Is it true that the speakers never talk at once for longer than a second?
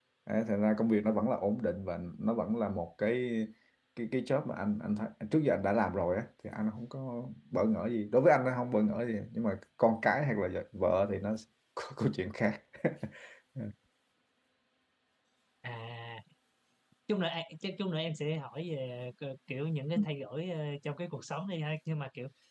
Yes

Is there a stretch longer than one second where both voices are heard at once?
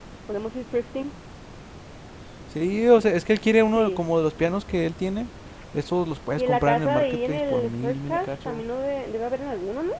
Yes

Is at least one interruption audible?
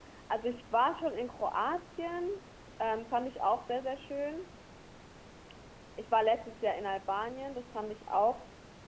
No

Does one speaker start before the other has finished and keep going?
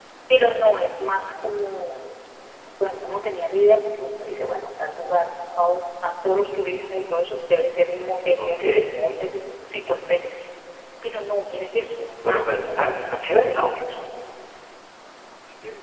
Yes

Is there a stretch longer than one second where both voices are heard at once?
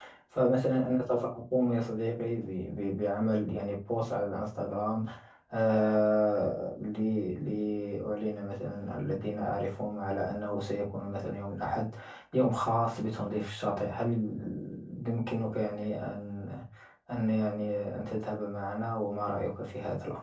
No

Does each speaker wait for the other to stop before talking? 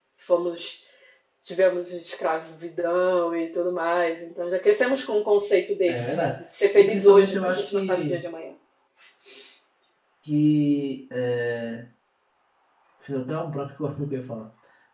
No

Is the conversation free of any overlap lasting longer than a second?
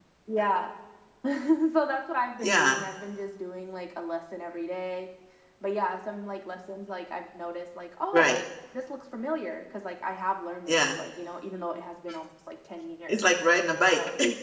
Yes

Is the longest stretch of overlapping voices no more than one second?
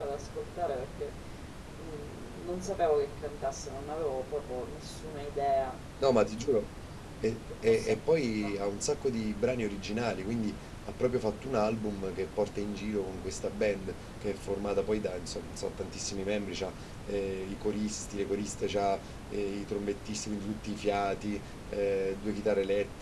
Yes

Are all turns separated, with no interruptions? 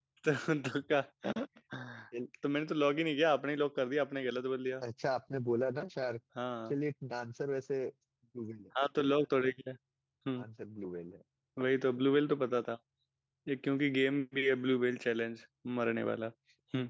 Yes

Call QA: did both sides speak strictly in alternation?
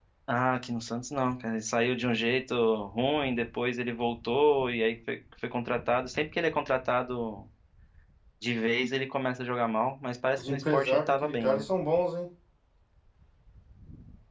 No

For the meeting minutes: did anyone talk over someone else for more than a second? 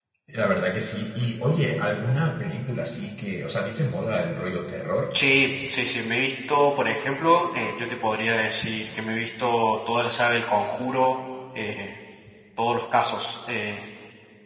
No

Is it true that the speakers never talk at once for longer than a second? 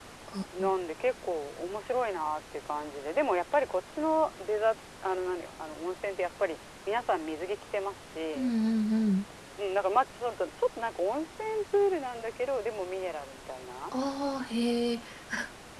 Yes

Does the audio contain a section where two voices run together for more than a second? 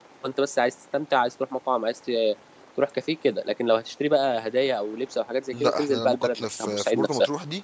Yes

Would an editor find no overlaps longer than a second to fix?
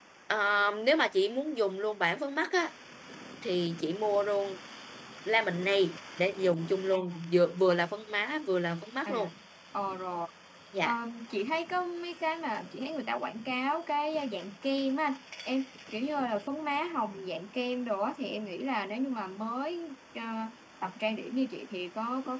Yes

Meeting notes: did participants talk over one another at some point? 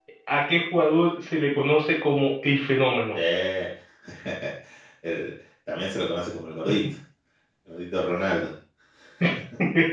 No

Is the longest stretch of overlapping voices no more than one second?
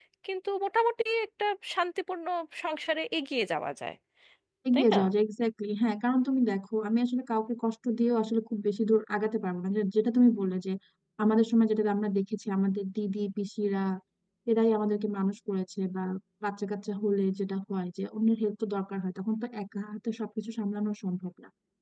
Yes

